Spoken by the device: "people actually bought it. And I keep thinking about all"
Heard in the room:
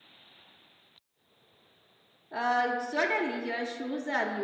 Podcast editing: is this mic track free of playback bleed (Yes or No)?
Yes